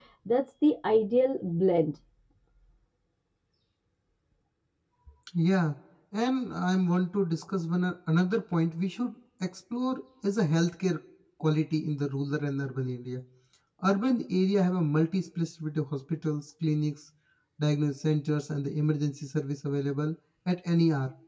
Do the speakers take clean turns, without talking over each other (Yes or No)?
Yes